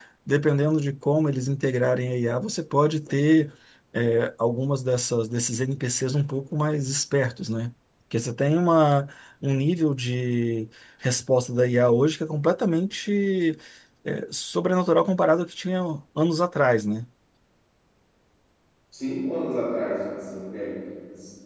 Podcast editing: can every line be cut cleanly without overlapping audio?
Yes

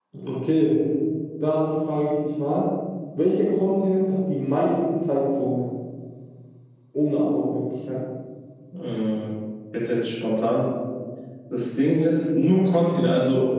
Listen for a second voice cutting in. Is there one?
No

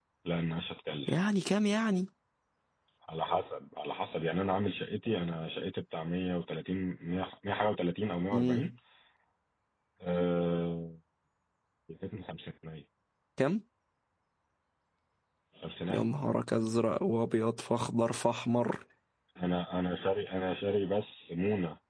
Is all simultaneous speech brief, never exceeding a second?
Yes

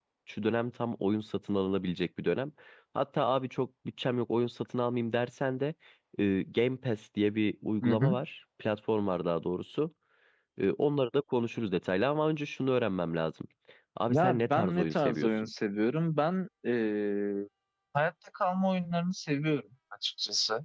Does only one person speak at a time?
No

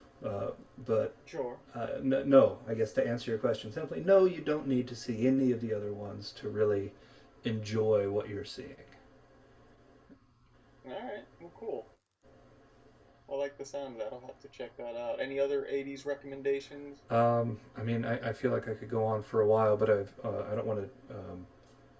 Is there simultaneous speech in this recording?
No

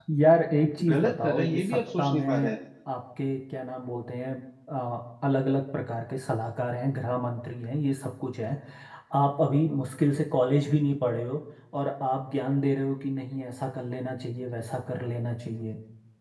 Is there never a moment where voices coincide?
No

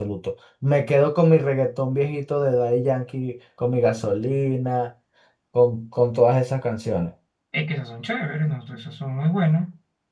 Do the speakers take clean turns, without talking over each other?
Yes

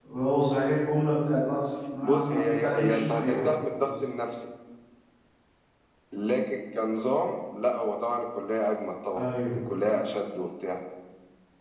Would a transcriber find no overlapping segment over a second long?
No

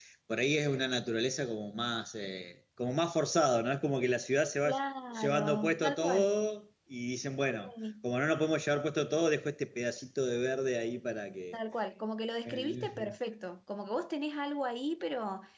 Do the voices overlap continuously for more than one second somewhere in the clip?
Yes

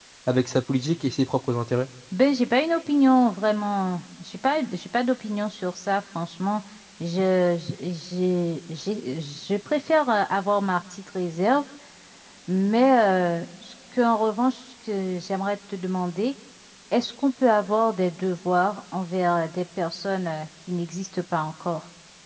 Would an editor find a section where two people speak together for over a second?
No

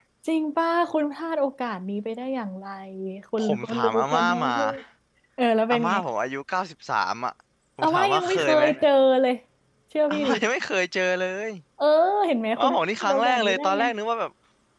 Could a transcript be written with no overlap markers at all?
No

